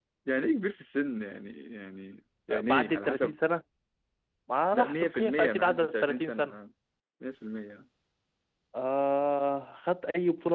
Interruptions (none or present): present